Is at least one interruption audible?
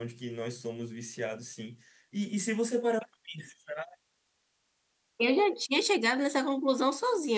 No

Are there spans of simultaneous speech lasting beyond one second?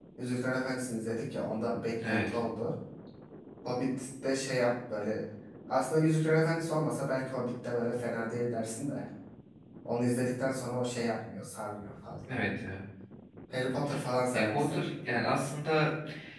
No

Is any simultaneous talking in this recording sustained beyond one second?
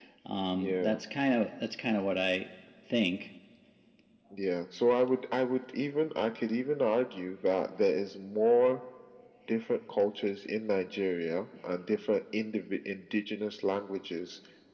No

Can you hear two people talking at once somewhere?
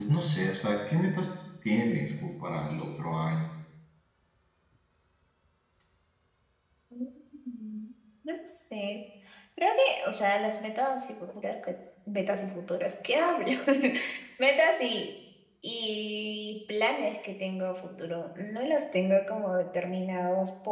No

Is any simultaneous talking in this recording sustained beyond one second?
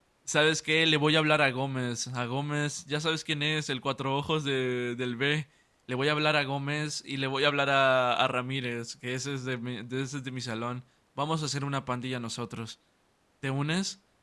No

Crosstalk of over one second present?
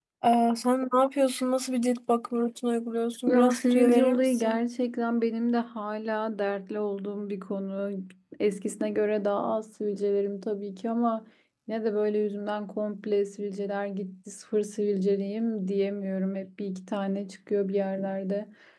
Yes, from 3.3 s

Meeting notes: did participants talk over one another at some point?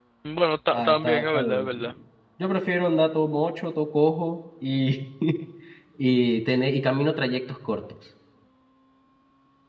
Yes, from 0.7 s

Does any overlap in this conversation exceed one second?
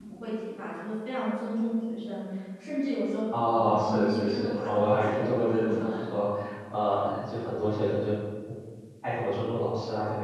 Yes, from 3.8 s

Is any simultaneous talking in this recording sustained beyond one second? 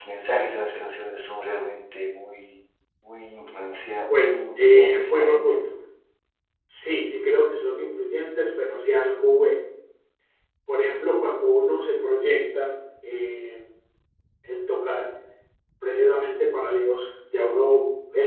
Yes, from 4.1 s

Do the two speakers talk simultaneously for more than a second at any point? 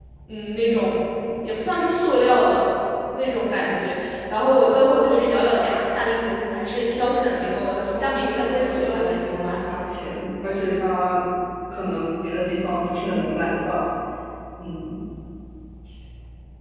Yes, from 7.9 s

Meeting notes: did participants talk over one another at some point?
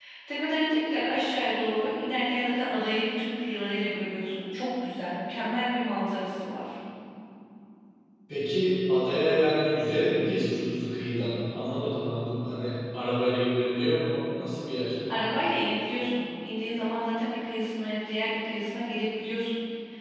No

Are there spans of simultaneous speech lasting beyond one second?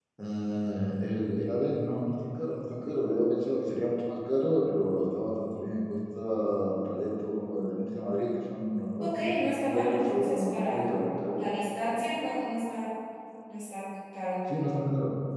Yes, from 9.0 s

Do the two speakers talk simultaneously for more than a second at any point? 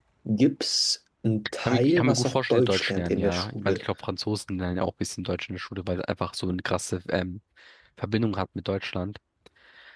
Yes, from 1.6 s

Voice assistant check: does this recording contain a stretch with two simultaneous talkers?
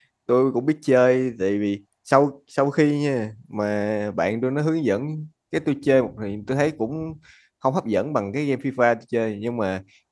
No

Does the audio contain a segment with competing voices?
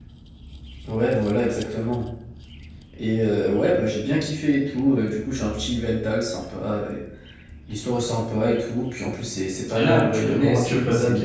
Yes, from 9.6 s

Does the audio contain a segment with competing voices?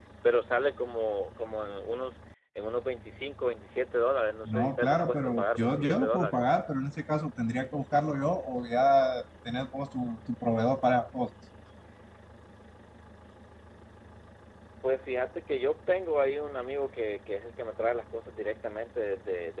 Yes, from 4.4 s

